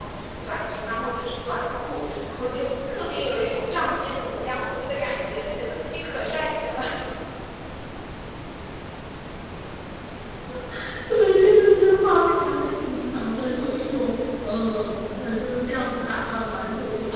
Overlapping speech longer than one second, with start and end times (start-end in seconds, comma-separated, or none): none